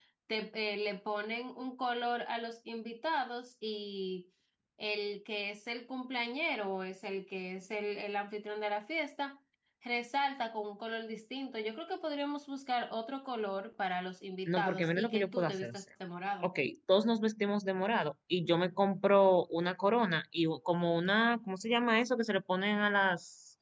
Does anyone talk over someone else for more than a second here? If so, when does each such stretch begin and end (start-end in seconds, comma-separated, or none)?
14.5-15.8